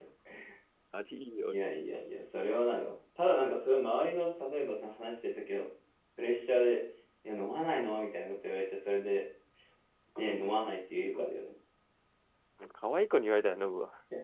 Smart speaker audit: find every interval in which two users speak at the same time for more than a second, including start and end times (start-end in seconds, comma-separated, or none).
none